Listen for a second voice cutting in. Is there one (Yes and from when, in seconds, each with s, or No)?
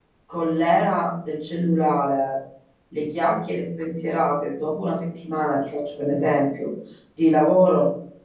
No